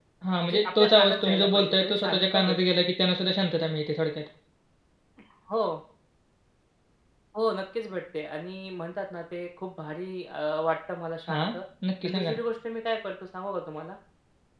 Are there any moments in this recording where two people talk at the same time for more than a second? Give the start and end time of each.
0.5-2.6

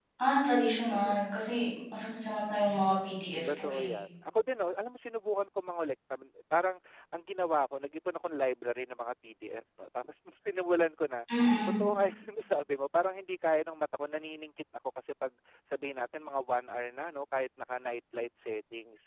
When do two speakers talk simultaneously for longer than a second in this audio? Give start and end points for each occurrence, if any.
none

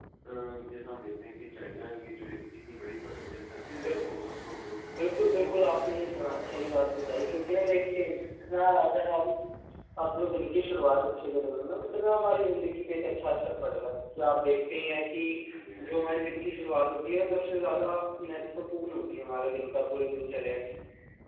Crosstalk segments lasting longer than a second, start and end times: 5.0-6.9

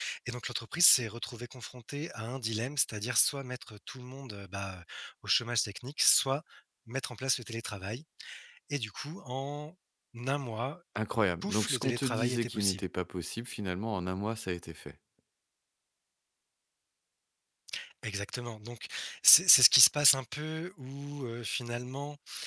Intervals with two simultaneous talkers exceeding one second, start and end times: 11.4-12.8

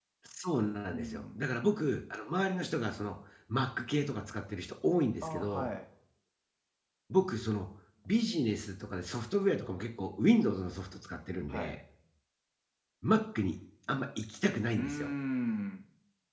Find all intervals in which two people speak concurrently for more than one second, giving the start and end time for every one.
none

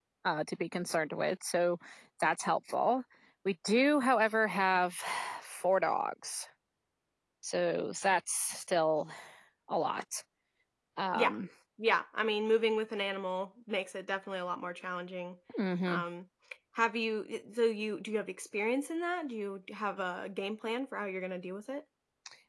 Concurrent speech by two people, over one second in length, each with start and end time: none

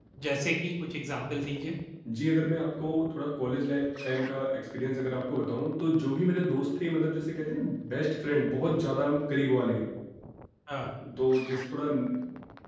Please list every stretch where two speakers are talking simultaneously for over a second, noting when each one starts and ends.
none

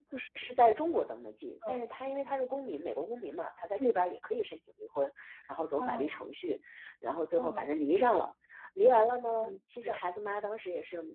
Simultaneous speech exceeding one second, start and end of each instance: none

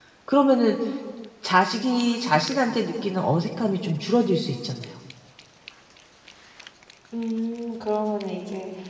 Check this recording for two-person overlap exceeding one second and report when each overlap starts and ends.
none

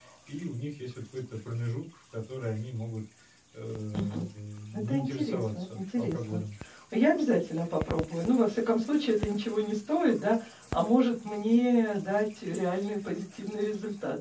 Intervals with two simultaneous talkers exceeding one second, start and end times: 4.7-6.4

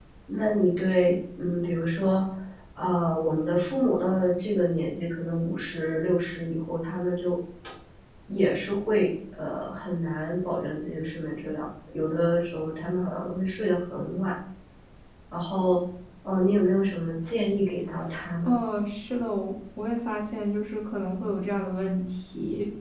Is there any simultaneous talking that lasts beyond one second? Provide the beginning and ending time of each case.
none

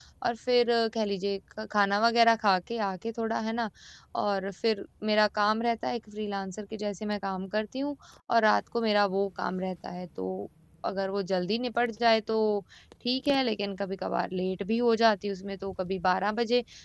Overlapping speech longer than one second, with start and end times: none

